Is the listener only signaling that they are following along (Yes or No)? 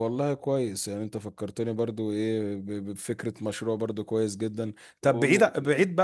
Yes